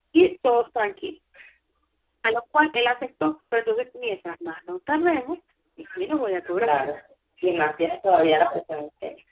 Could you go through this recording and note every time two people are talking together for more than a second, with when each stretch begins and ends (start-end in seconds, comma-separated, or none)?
none